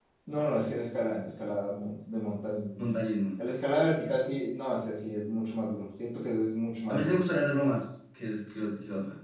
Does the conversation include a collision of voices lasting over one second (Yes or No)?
No